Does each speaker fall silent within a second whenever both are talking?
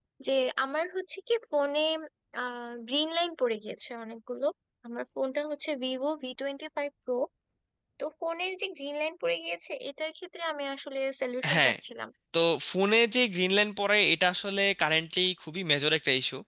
Yes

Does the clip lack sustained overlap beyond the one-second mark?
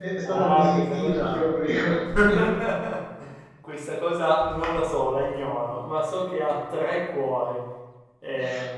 No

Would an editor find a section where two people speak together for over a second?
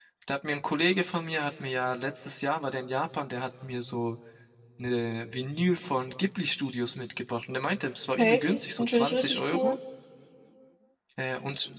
Yes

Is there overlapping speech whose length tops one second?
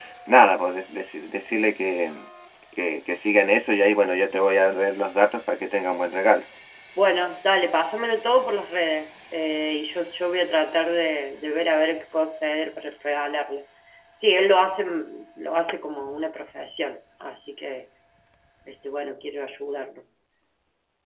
No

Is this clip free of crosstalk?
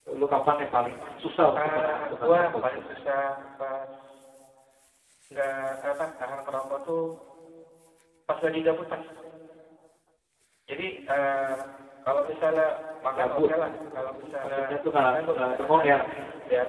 No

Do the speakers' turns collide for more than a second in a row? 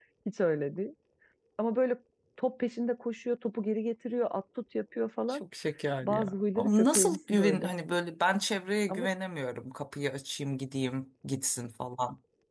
Yes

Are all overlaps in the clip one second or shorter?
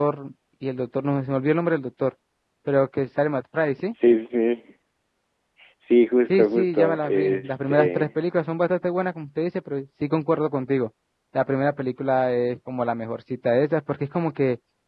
No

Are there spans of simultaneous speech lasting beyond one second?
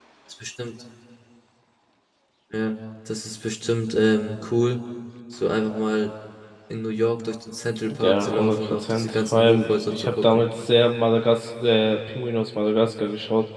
Yes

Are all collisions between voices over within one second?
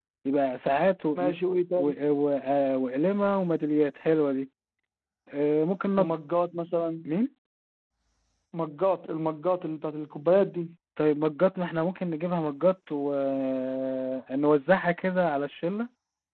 Yes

